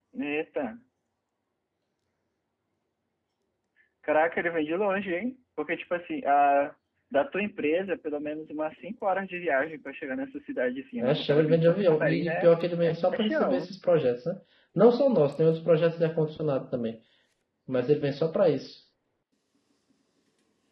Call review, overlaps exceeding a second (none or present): present